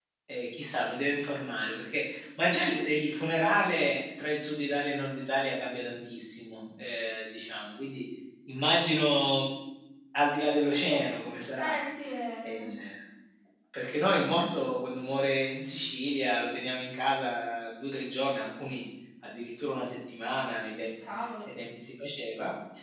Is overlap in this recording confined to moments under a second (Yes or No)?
Yes